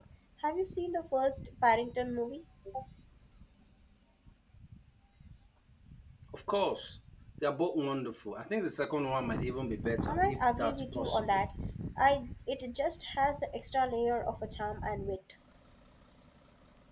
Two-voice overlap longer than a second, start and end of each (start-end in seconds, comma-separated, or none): 10.1-11.4